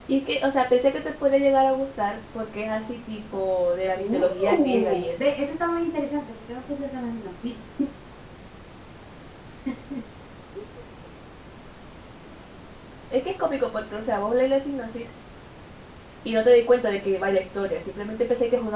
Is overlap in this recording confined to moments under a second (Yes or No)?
No